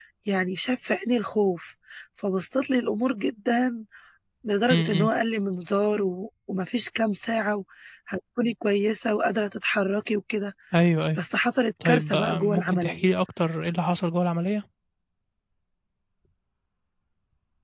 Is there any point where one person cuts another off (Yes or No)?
Yes